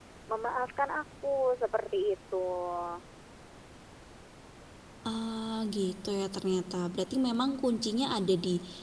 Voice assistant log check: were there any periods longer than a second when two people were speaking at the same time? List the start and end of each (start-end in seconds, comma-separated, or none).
none